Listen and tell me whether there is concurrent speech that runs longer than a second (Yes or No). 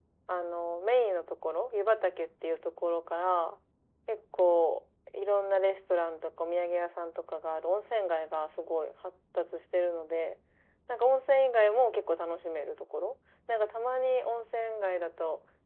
No